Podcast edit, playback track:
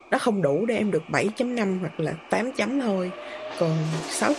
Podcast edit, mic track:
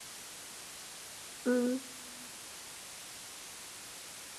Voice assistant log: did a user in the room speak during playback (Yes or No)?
Yes